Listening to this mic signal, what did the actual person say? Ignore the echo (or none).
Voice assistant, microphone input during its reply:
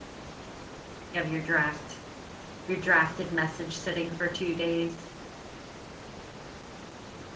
you have your draft. Your drafted message sitting for 2 days.